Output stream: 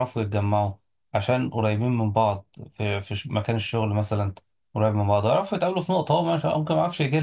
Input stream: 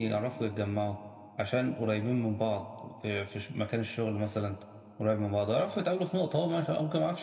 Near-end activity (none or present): none